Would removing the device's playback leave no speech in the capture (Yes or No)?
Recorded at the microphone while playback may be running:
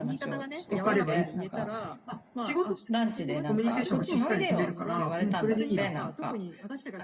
No